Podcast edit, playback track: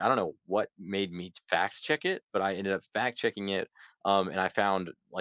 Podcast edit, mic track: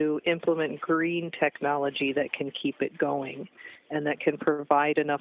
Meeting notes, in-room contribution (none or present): present